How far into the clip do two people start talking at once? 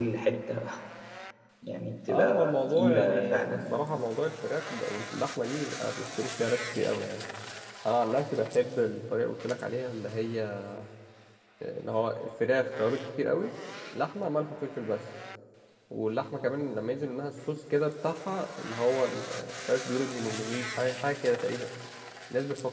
2 s

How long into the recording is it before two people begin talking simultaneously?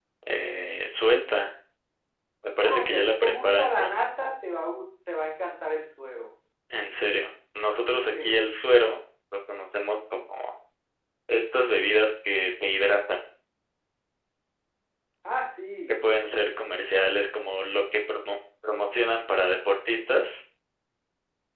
3 s

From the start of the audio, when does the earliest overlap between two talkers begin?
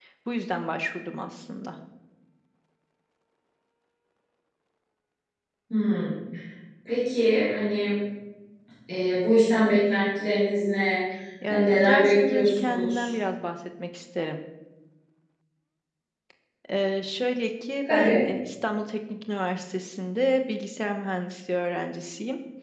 11 s

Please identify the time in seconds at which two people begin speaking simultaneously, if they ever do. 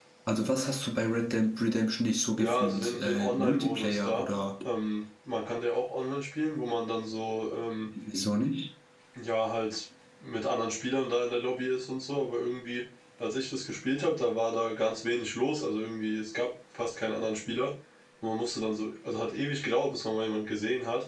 2 s

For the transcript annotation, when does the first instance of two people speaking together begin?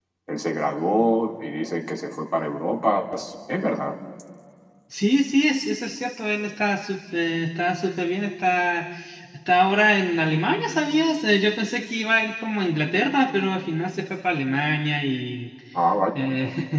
none

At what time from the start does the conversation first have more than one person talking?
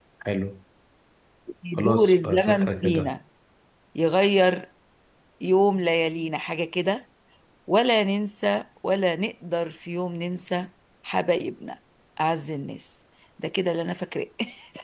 2 s

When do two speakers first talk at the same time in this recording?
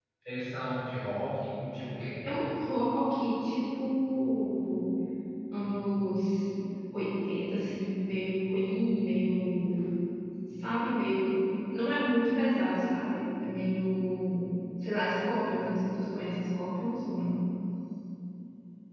none

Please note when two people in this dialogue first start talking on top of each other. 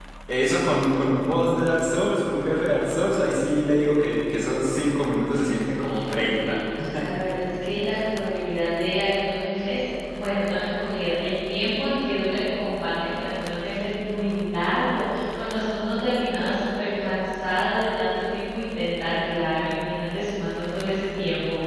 5 s

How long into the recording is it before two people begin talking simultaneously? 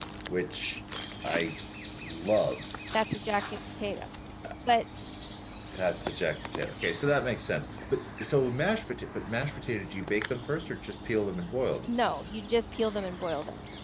none

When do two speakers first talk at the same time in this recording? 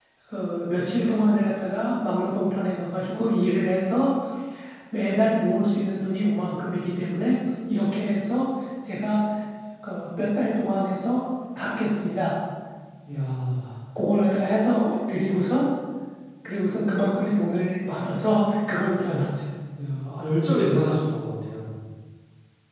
none

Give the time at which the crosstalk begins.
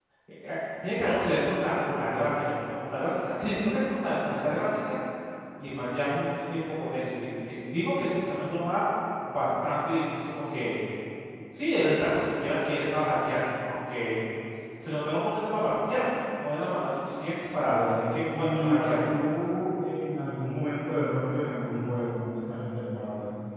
18 s

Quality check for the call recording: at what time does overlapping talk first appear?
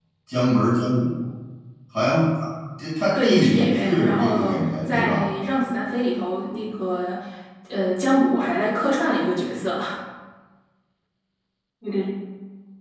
3 s

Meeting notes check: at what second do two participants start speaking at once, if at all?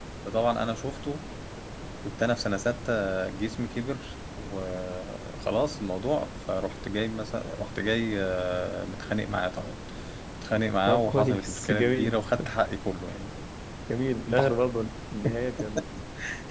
11 s

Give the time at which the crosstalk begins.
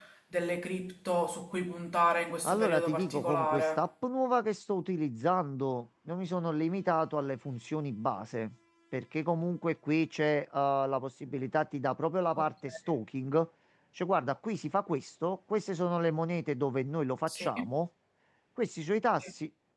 2 s

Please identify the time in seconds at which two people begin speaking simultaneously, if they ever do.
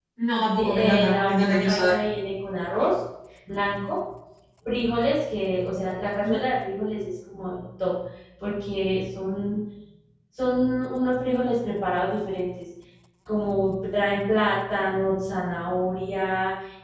1 s

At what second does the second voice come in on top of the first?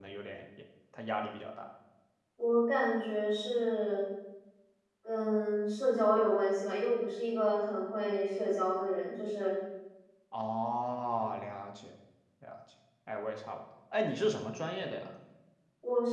none

